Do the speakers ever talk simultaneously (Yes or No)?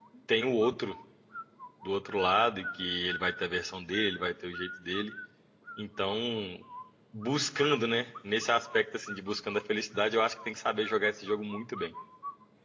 No